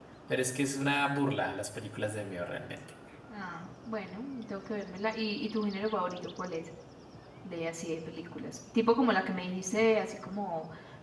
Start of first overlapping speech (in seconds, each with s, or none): none